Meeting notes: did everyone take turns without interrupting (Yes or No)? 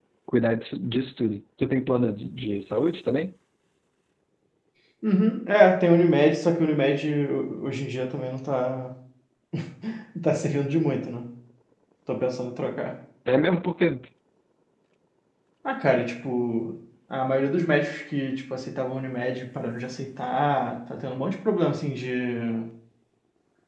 Yes